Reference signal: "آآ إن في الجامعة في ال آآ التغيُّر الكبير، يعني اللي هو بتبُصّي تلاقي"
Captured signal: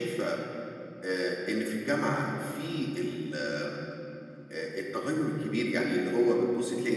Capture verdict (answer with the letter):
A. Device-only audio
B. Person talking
A